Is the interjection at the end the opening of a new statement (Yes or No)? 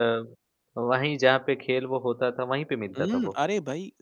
Yes